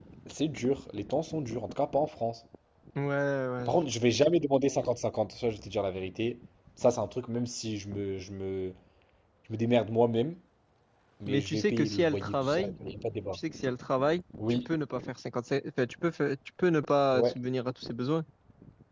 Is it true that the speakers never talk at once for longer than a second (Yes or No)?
No